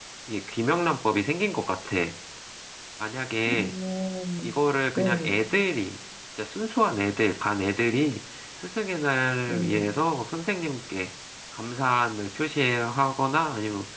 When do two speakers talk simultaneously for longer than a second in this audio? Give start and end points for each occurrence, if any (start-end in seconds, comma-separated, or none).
none